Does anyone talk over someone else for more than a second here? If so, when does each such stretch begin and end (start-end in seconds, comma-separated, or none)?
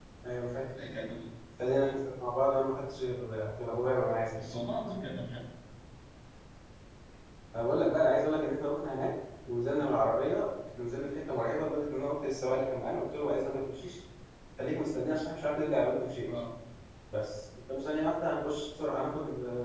none